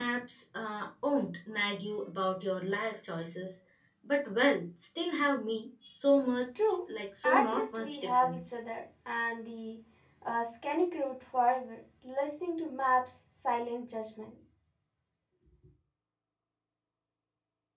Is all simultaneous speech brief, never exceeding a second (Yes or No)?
No